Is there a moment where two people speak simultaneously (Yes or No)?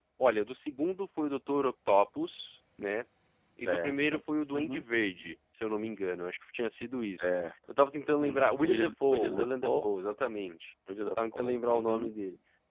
Yes